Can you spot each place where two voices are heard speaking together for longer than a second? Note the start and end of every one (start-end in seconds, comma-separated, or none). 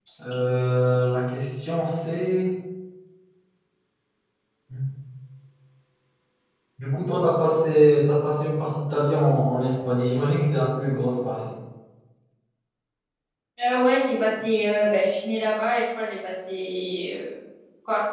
none